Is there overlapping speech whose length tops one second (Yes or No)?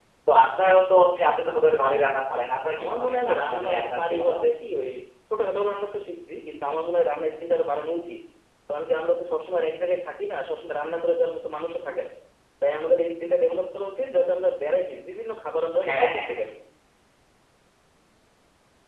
Yes